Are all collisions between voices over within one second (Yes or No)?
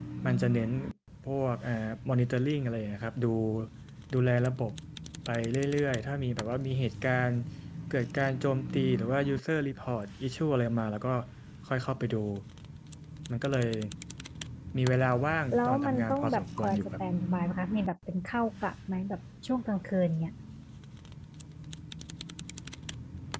No